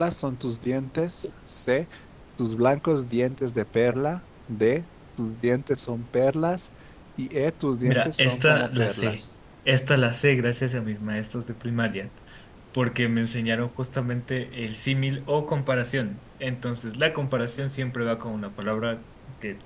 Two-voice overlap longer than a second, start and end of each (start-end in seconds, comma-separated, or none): 7.8-9.2